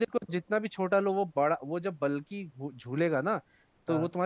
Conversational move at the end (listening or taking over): listening